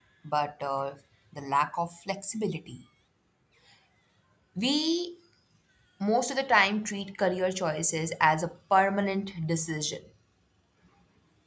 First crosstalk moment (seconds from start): none

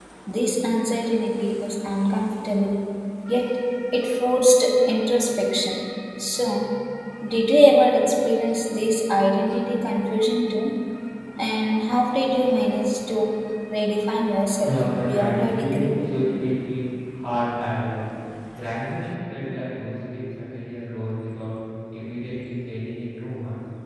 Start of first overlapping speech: 14.6 s

